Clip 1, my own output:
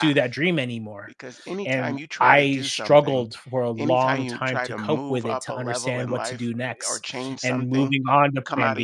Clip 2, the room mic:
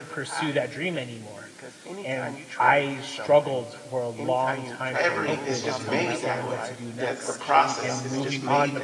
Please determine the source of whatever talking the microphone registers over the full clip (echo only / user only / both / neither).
both